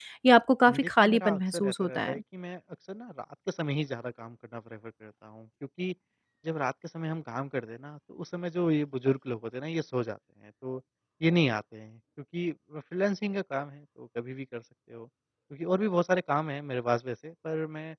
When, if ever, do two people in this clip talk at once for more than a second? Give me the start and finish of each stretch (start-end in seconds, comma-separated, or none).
0.8-2.1